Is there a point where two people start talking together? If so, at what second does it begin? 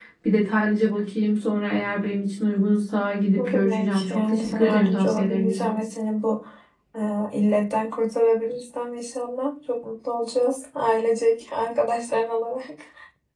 3.4 s

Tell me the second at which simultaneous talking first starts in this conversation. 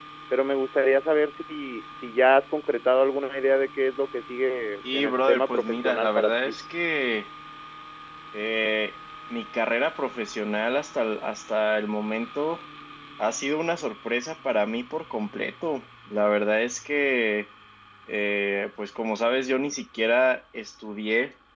4.8 s

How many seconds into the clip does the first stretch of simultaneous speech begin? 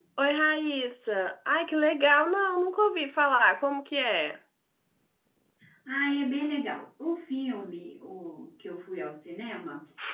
none

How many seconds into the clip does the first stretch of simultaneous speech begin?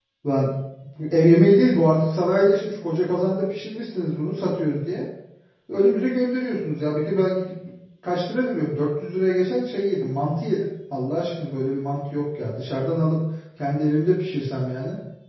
none

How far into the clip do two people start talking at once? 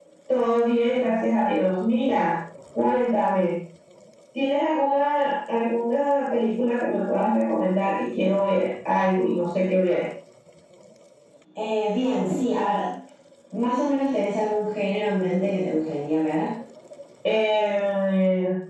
none

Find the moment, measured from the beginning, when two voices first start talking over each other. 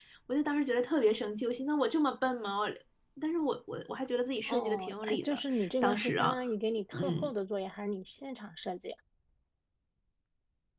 4.5 s

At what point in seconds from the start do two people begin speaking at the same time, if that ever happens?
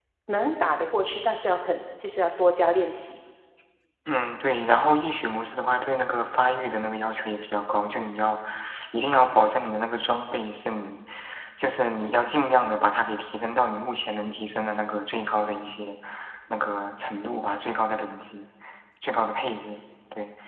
none

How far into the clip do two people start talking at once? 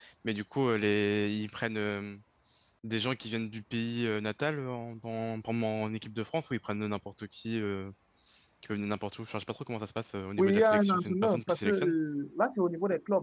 10.4 s

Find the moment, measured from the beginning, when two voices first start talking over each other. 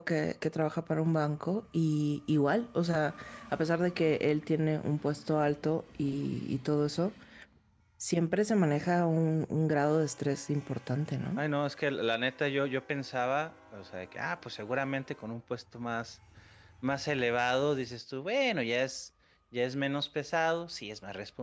none

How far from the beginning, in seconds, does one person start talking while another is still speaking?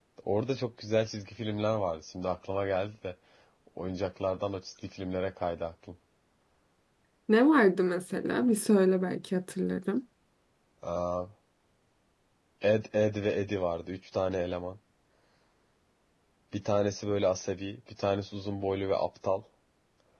none

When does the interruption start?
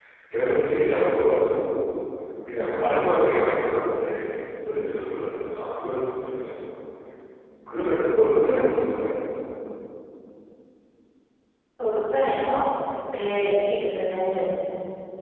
none

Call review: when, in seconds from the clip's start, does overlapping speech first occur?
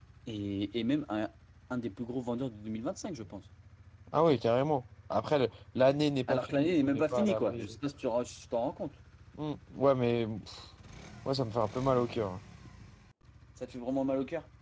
6.3 s

